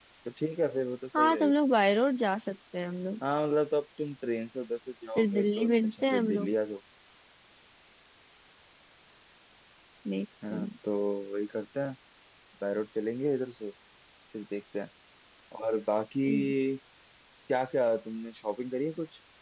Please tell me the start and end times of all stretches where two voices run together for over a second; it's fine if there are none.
5.2-6.5

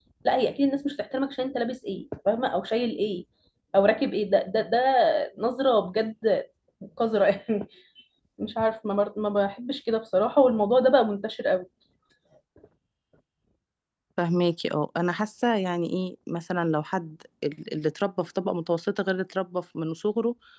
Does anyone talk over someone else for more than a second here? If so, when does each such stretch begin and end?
none

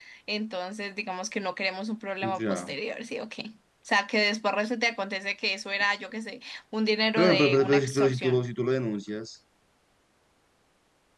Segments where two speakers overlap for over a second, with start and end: 7.2-8.4

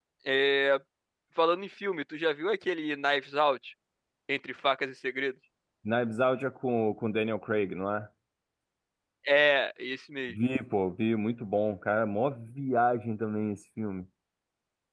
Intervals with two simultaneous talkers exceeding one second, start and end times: none

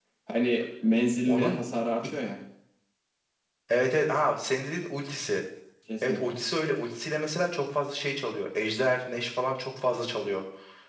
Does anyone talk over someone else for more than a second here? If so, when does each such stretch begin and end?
none

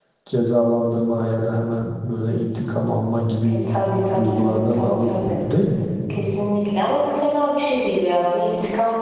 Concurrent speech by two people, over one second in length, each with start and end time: 4.1-5.4

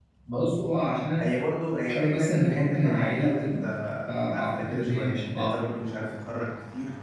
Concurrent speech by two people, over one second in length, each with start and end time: 1.8-3.7, 4.1-5.5

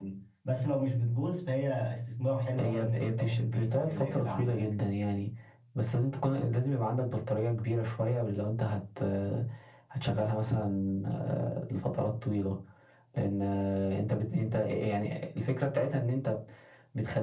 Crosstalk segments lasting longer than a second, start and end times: 2.6-4.7

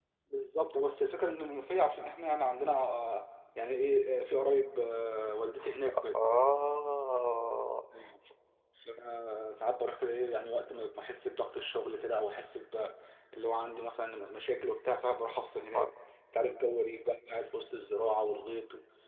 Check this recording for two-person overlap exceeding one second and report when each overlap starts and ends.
none

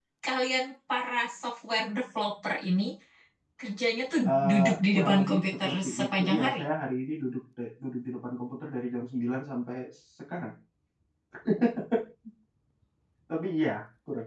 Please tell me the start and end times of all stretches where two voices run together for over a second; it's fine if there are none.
4.3-6.6

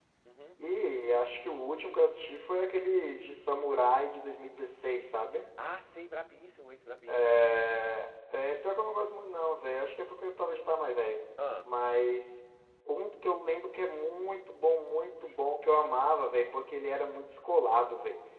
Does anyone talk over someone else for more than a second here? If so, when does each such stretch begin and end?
none

